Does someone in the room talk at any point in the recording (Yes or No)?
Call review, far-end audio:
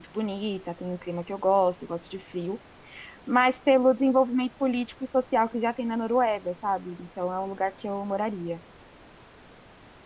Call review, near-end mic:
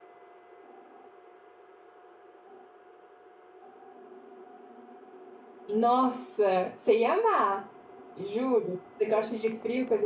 Yes